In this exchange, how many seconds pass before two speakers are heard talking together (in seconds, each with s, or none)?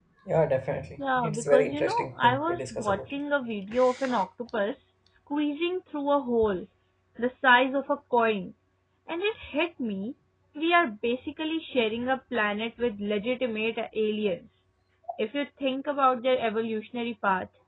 1.2 s